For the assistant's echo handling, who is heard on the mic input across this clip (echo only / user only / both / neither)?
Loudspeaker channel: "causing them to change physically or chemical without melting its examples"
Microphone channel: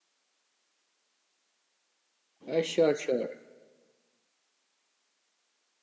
user only